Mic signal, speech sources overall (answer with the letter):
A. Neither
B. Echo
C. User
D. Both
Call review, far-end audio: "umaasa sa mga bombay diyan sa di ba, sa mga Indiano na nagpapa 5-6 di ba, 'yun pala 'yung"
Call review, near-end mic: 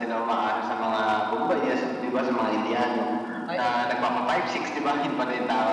D